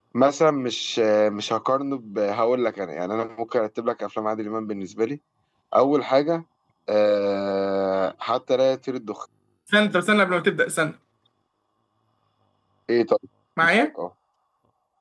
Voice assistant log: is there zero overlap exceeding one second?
Yes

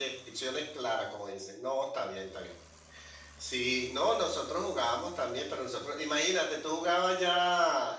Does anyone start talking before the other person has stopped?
No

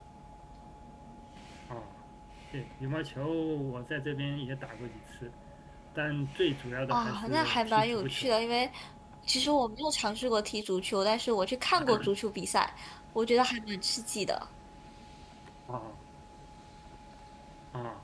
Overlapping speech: Yes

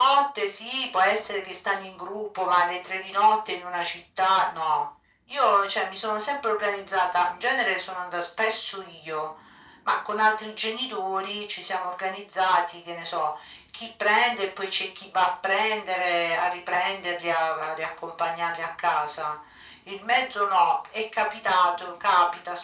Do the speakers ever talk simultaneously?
No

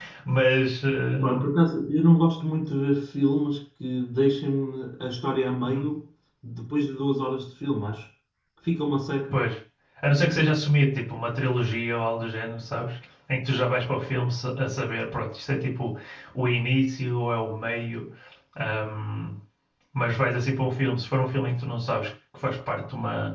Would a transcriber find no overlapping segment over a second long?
Yes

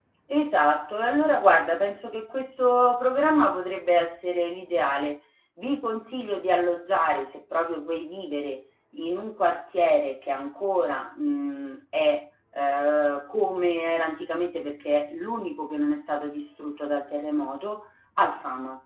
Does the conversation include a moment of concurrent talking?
No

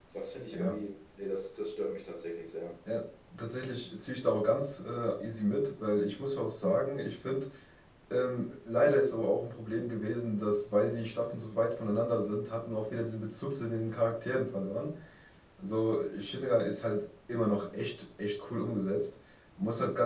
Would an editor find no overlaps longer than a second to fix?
Yes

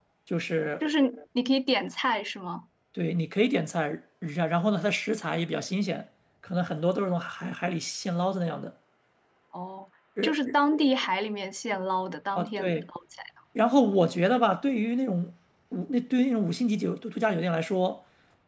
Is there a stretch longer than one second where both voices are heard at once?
No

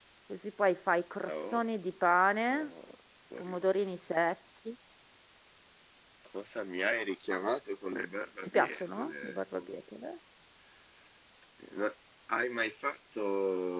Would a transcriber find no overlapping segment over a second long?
No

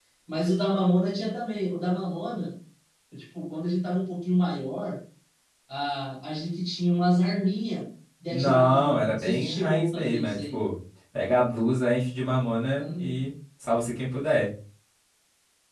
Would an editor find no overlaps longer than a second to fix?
No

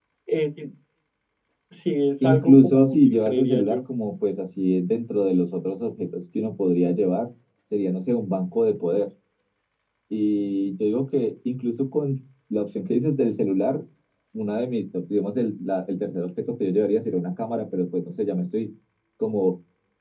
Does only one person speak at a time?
No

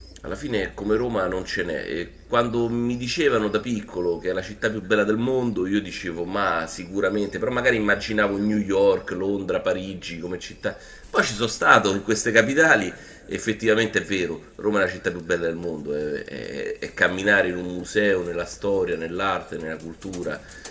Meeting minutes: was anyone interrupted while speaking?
No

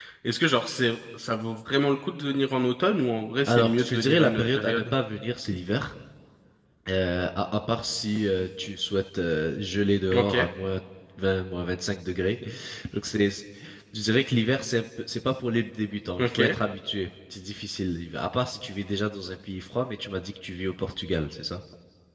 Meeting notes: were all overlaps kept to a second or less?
No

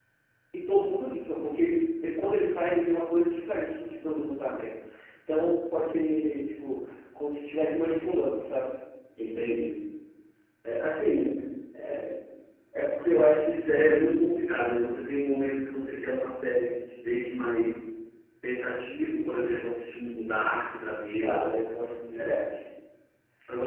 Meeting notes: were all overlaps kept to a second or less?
Yes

